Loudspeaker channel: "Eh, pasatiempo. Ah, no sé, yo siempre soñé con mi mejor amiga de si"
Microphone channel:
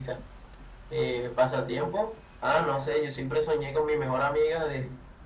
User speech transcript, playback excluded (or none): none